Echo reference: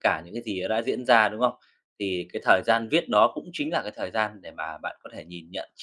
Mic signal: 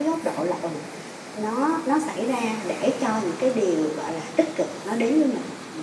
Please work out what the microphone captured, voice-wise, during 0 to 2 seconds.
user only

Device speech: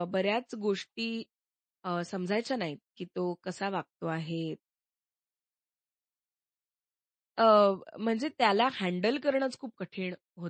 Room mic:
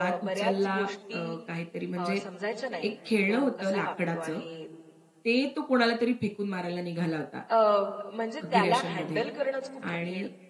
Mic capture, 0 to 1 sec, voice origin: both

